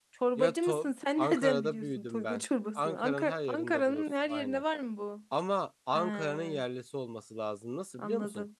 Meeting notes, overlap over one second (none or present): present